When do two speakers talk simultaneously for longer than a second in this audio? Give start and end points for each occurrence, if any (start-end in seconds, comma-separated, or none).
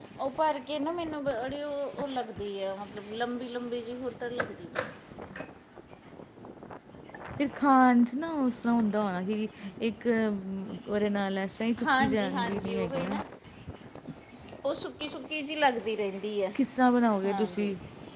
11.9-13.2